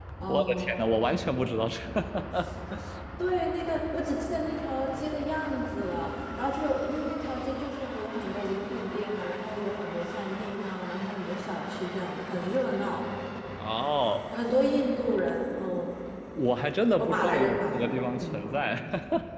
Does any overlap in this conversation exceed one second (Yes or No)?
Yes